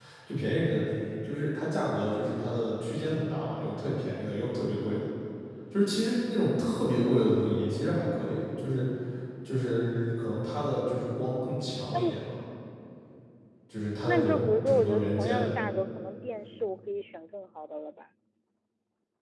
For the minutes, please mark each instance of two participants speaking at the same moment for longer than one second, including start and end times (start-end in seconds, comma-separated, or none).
14.0-15.5